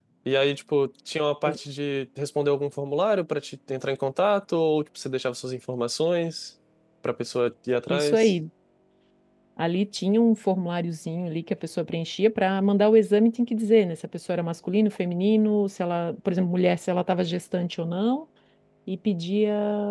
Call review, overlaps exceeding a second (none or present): none